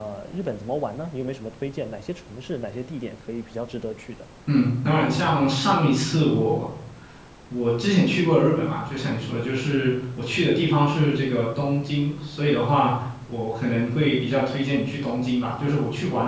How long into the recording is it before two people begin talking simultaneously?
none

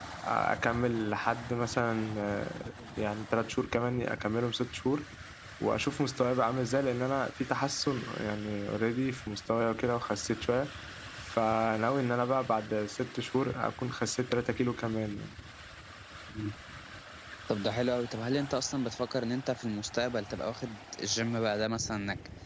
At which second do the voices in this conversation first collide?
none

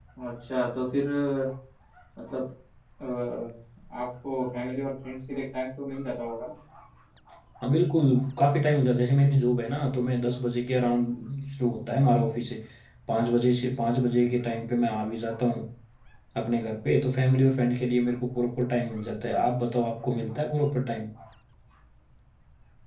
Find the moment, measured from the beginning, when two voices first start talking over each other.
none

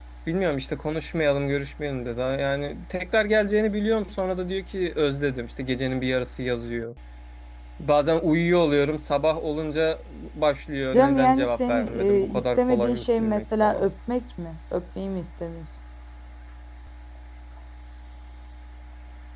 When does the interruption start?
10.9 s

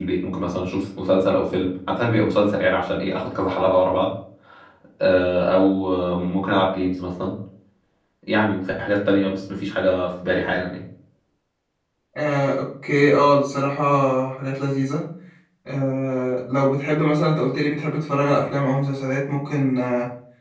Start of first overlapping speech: none

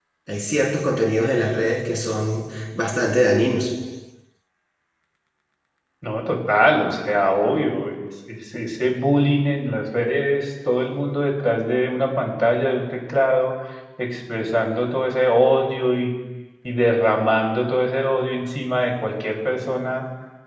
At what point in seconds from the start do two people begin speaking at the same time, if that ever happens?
none

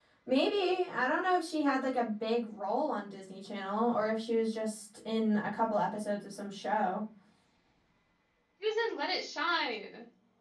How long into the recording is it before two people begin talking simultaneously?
none

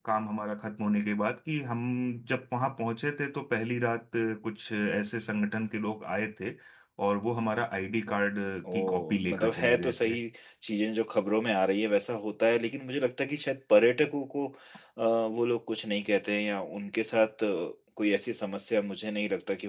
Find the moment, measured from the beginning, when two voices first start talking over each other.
8.6 s

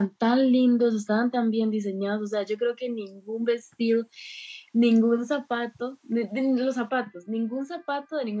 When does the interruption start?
none

